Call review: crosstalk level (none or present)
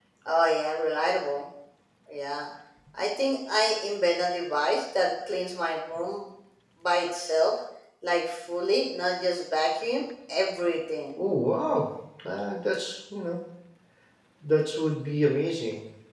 none